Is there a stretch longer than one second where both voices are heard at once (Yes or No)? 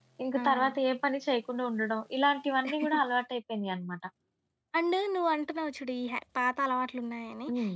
No